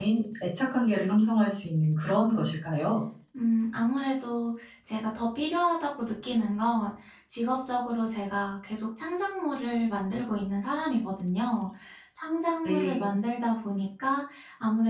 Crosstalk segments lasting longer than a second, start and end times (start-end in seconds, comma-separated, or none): none